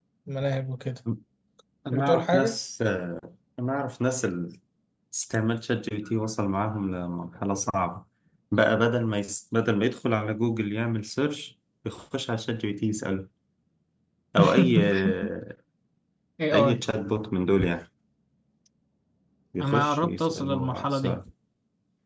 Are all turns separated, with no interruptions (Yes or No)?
No